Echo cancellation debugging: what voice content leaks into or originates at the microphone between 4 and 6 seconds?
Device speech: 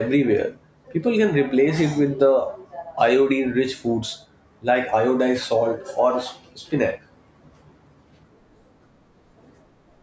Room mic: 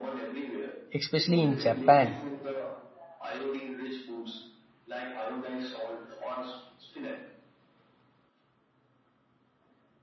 echo only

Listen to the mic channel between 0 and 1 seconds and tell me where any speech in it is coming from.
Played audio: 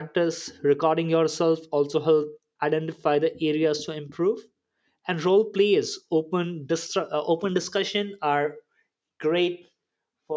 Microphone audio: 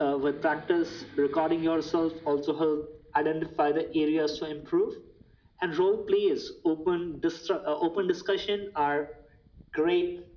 echo only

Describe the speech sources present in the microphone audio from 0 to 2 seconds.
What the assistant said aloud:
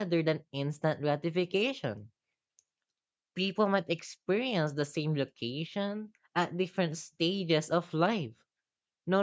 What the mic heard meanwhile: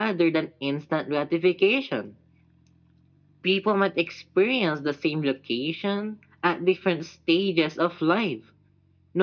echo only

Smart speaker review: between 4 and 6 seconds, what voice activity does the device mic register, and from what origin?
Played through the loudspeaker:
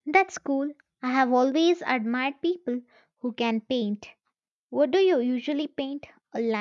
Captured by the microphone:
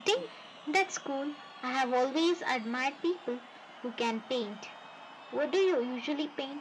echo only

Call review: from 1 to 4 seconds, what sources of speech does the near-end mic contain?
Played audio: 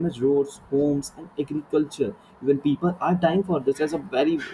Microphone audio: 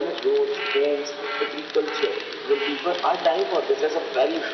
echo only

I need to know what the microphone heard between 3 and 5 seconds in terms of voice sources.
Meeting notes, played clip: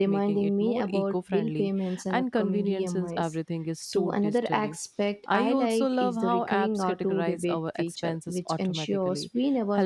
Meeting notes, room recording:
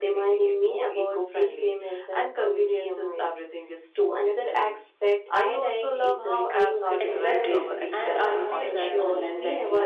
echo only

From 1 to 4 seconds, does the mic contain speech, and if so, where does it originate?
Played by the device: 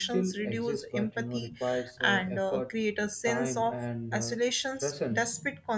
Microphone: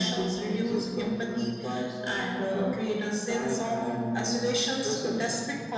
echo only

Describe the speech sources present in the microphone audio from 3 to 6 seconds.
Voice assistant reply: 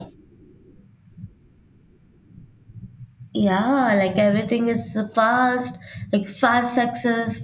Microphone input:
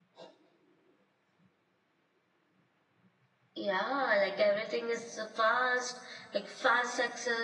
echo only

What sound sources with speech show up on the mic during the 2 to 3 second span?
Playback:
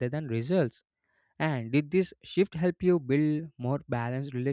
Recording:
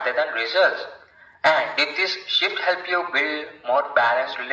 echo only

